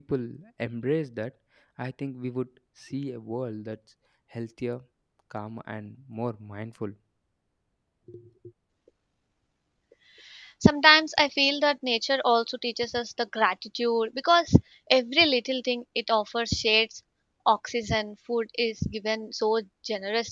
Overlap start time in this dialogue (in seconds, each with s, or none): none